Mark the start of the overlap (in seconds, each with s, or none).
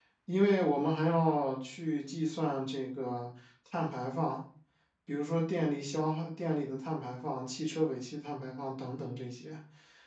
none